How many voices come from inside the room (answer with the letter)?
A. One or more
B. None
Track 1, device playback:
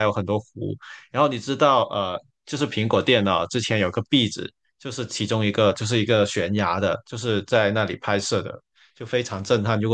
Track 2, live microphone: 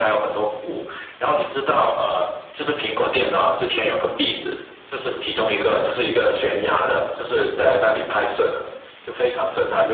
B